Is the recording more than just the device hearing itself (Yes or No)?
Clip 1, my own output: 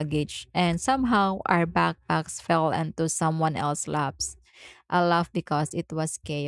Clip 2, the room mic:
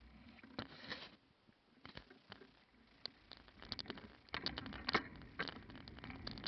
No